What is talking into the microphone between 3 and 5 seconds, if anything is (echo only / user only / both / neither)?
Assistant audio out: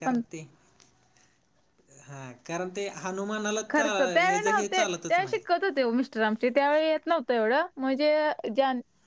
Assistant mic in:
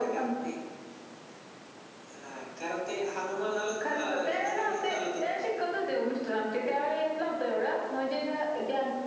echo only